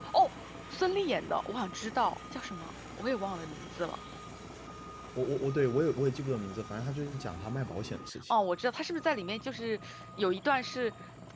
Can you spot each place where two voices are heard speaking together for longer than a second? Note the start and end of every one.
none

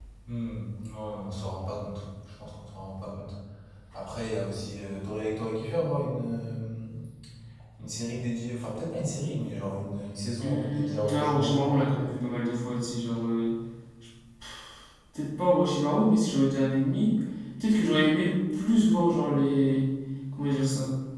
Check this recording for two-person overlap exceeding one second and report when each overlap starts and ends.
10.4-11.9

